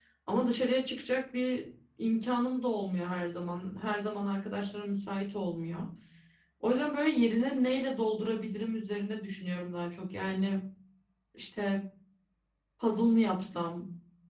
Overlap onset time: none

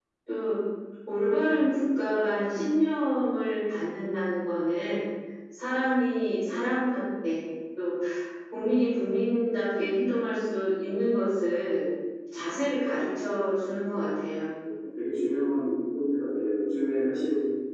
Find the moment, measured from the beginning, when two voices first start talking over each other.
none

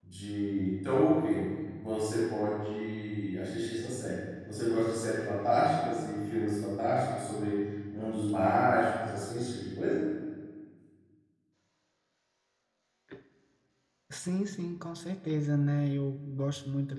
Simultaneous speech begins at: none

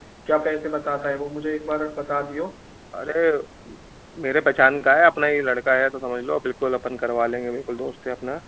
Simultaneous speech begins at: none

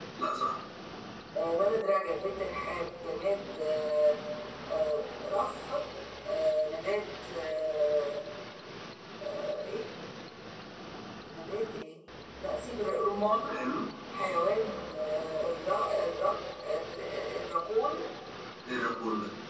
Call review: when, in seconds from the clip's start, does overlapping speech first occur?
none

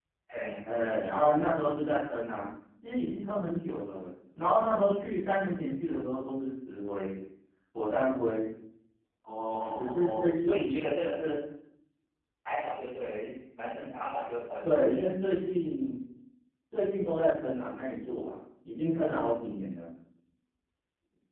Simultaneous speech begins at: 10 s

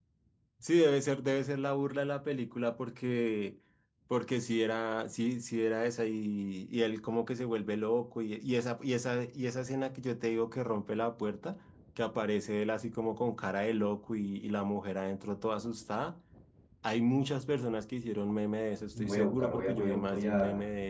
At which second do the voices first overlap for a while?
19 s

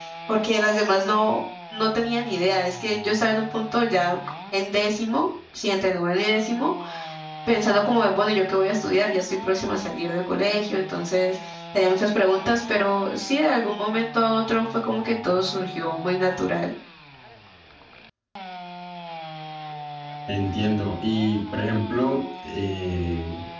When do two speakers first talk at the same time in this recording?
none

